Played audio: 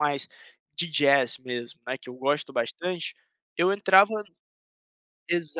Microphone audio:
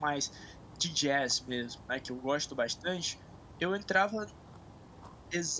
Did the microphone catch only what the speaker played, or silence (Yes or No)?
Yes